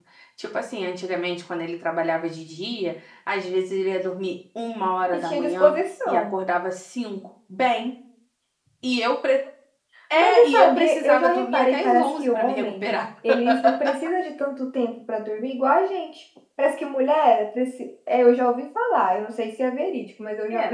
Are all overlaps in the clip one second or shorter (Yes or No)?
No